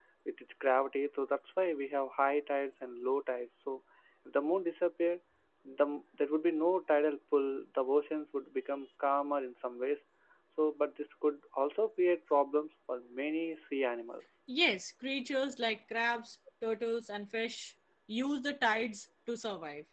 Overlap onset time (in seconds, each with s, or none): none